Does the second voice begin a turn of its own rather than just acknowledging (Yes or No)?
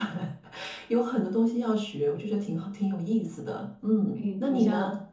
Yes